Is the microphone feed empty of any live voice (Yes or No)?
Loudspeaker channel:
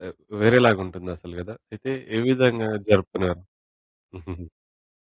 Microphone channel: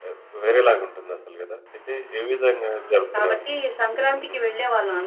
No